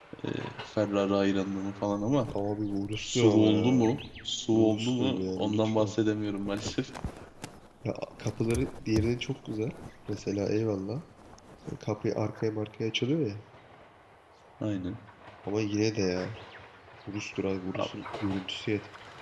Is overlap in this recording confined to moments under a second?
No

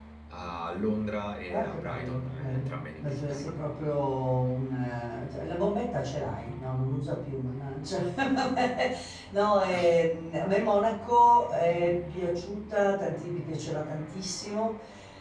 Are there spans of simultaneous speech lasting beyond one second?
Yes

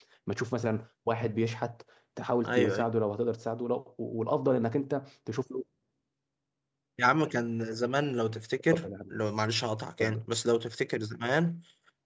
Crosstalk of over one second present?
No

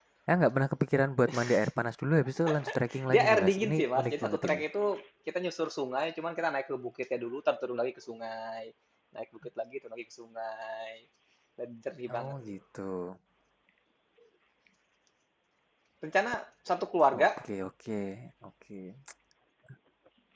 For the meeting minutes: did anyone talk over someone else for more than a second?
Yes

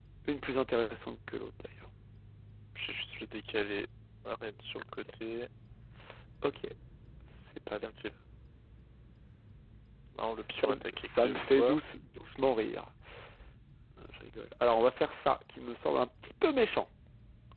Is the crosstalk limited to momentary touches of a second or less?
No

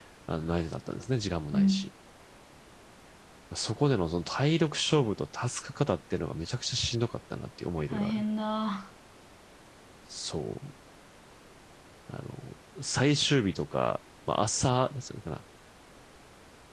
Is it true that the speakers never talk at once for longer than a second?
Yes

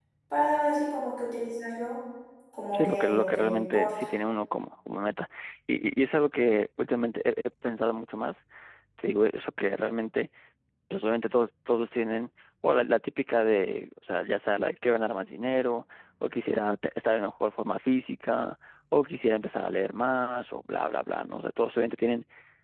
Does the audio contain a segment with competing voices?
Yes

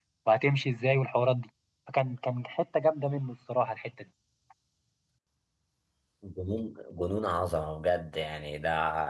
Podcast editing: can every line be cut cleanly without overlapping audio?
Yes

